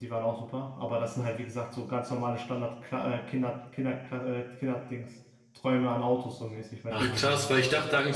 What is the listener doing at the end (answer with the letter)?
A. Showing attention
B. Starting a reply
B